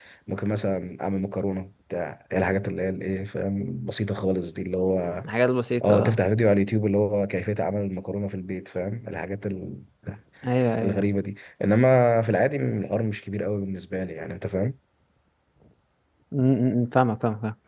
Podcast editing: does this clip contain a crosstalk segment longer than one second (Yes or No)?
No